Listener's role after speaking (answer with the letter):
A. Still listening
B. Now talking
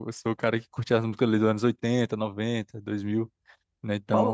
B